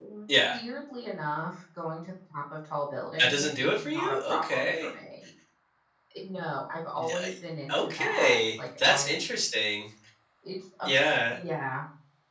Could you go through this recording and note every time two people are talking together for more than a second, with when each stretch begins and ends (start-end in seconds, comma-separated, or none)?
3.2-4.9, 7.7-9.2